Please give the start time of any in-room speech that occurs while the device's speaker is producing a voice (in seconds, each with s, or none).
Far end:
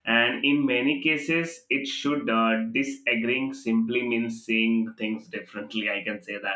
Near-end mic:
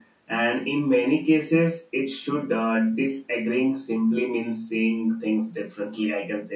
none